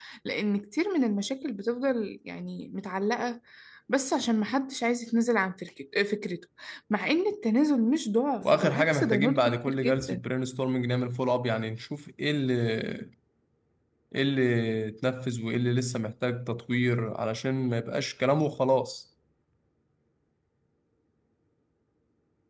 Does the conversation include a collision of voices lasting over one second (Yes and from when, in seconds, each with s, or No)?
Yes, from 8.4 s